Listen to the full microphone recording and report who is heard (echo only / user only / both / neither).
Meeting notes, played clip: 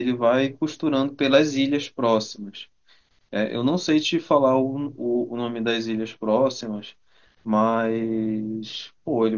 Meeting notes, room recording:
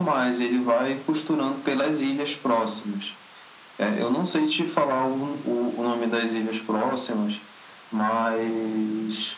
echo only